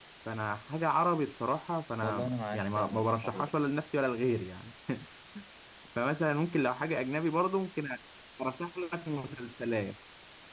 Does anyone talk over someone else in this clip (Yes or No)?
Yes